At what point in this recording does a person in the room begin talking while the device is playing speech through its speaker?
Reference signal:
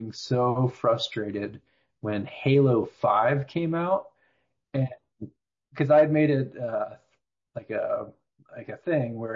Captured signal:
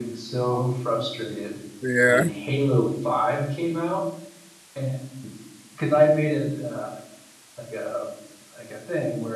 2 s

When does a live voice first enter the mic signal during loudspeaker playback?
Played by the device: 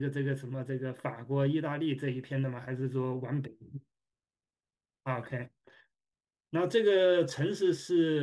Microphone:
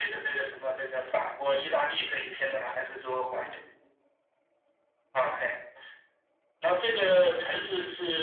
none

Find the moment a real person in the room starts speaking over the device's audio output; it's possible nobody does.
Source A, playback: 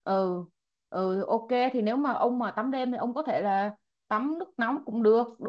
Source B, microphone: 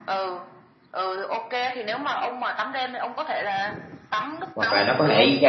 5 s

